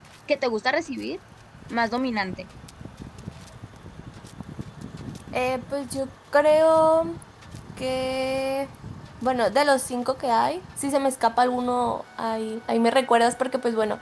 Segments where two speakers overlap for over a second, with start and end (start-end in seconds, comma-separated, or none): none